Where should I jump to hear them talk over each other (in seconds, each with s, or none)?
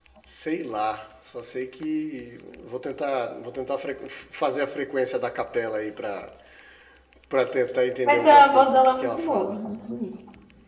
8.0 s